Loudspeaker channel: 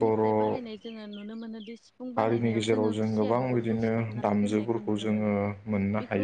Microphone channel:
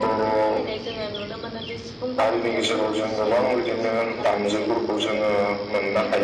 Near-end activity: none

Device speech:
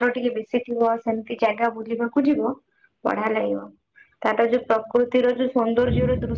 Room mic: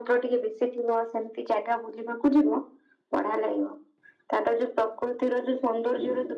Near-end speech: none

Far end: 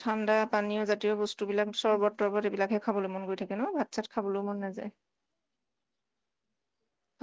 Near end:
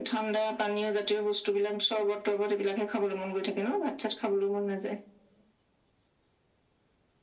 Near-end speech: none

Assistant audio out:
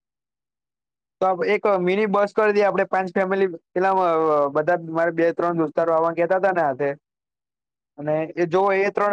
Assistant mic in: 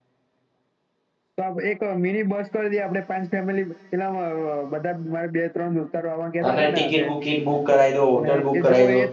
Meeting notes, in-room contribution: present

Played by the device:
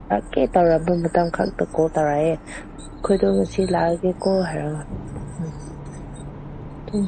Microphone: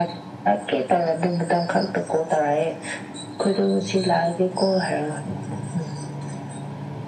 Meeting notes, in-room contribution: none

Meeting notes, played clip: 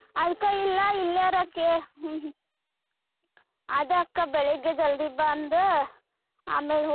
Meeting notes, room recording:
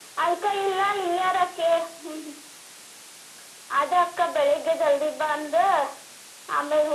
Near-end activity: none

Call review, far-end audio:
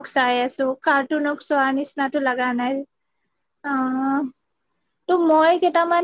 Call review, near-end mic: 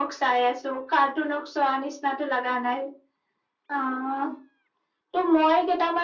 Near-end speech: none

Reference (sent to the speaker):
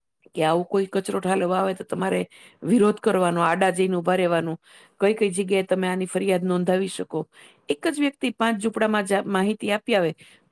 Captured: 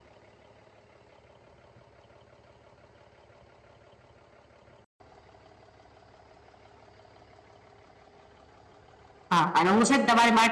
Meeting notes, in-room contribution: present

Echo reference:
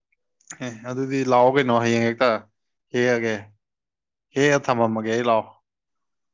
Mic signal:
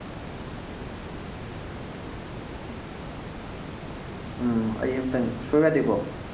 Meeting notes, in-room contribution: present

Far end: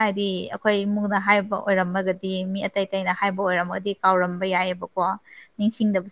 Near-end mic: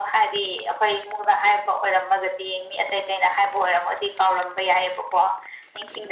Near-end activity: none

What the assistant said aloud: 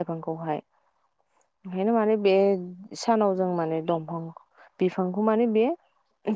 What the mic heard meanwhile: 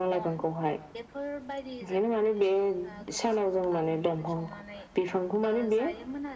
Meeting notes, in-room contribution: present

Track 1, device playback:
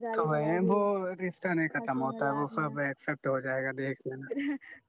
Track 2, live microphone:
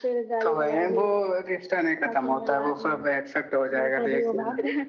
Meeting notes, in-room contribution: present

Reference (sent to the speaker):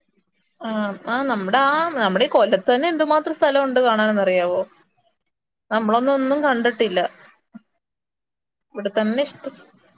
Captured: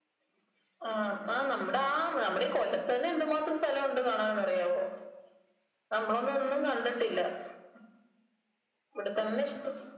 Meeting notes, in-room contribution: none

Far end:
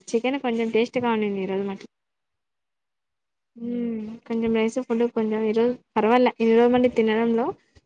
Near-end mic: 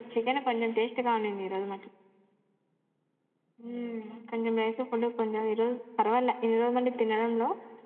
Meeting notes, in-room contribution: none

